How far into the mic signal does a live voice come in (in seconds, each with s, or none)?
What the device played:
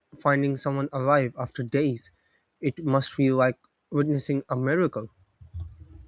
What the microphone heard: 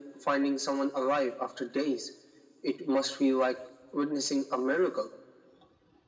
none